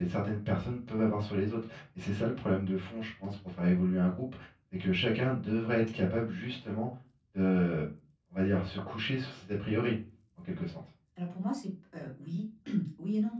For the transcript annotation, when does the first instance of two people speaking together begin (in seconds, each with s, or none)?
none